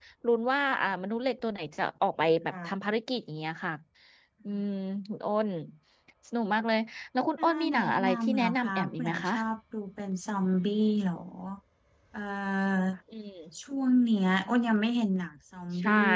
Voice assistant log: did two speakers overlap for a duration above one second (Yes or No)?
Yes